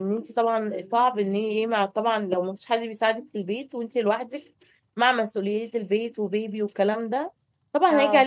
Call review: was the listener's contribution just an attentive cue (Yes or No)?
Yes